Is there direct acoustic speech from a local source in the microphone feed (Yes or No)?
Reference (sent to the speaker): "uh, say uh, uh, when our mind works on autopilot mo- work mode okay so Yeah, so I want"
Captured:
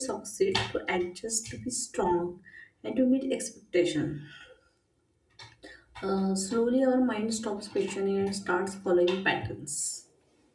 Yes